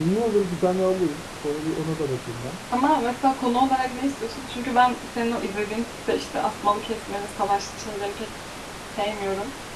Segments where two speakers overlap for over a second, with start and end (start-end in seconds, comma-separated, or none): none